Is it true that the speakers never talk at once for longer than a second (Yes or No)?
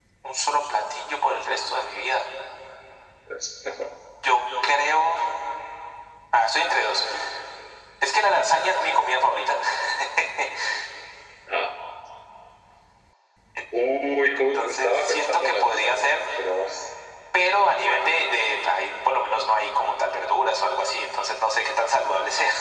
No